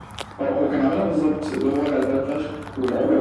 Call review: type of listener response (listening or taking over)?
taking over